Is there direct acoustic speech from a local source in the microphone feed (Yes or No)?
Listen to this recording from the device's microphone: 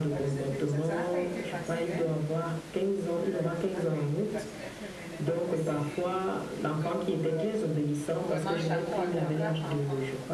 Yes